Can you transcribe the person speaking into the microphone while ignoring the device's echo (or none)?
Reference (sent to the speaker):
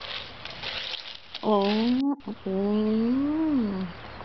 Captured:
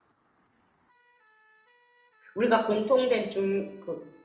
우리가 공통된 중그